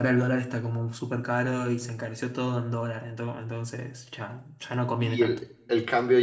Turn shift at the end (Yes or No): Yes